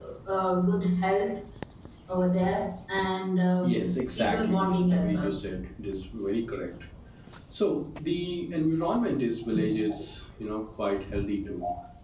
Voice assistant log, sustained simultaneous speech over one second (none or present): present